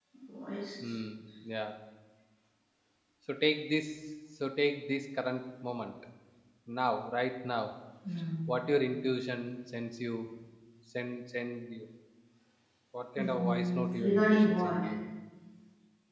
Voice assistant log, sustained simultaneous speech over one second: present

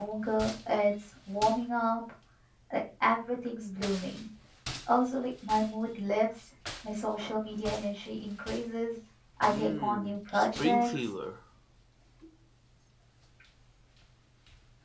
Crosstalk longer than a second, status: present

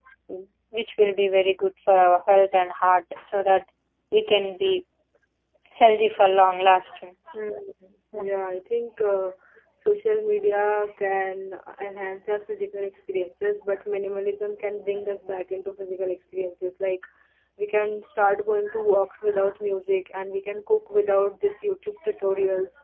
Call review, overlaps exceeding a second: none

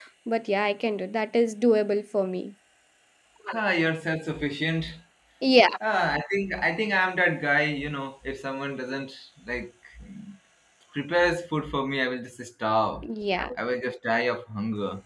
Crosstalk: none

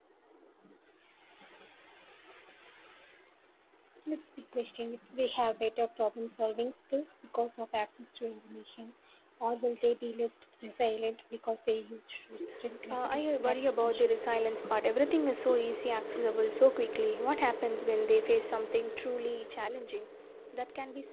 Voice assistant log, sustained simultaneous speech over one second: present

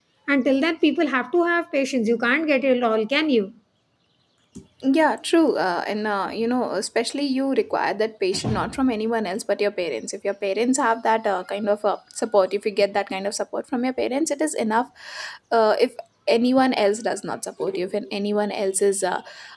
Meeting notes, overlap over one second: none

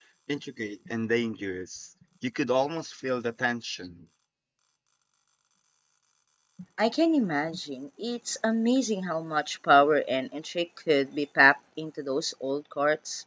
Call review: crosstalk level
none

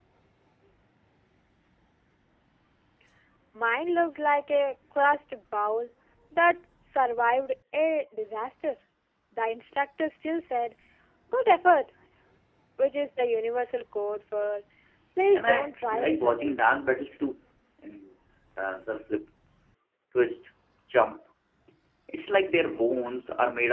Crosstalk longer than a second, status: present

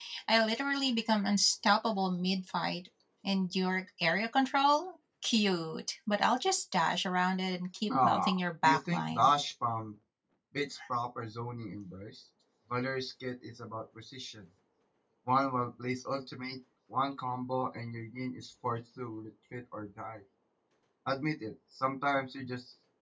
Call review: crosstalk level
present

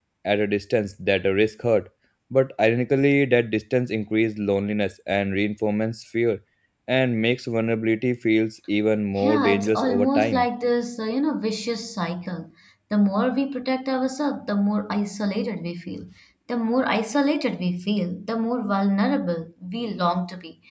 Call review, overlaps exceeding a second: present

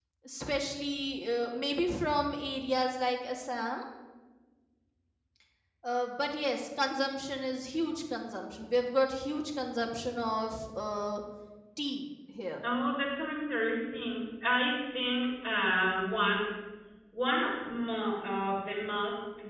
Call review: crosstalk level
none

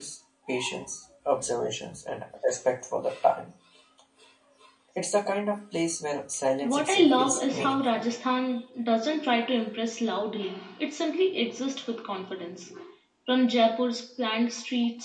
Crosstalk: present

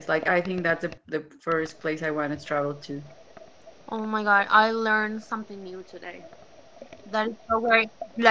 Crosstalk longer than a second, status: none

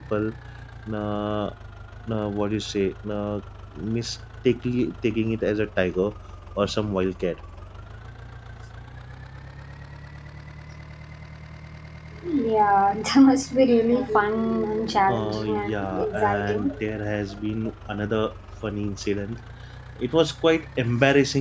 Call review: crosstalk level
present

